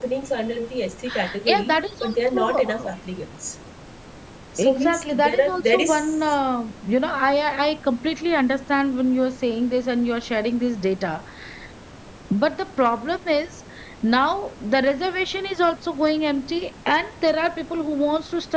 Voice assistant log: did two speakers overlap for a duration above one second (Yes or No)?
Yes